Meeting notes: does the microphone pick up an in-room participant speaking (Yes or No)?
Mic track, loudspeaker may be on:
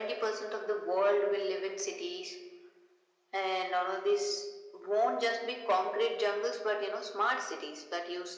No